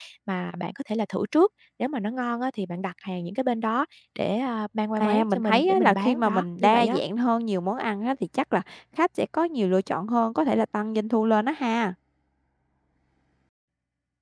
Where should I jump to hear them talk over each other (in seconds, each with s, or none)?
5.0 s